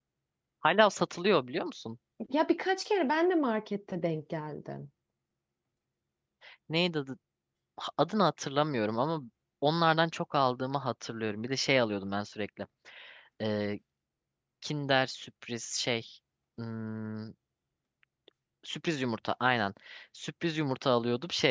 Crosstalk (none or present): none